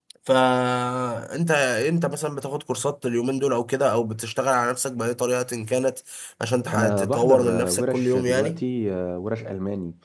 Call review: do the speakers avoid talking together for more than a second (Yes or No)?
No